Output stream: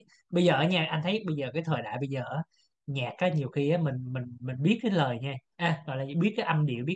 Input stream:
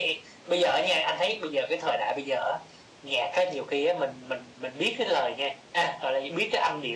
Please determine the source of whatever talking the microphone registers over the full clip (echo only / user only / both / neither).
echo only